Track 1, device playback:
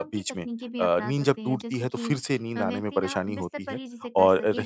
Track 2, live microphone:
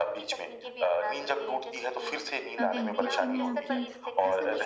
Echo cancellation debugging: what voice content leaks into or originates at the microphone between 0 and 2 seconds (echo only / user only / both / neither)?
echo only